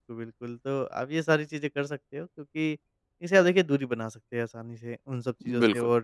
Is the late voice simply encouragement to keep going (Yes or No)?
Yes